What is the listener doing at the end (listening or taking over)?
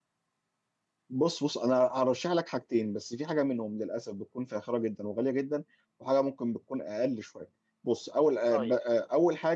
listening